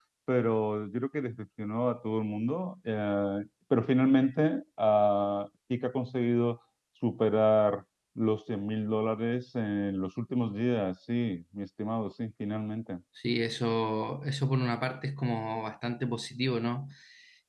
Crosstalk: none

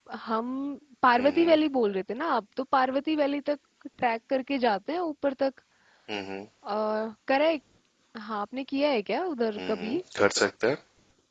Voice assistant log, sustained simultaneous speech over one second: none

